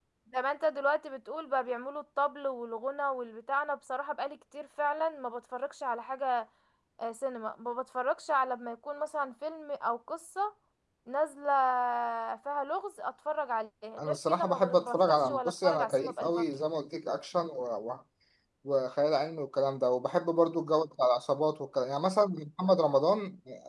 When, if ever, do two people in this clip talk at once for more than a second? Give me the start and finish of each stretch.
14.0-16.4

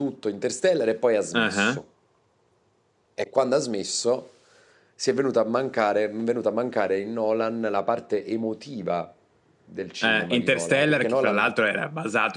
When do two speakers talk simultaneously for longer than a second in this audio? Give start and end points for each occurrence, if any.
10.0-11.4

